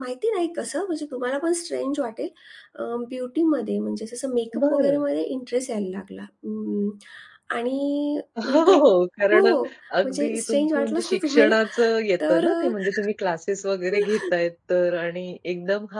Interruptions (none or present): present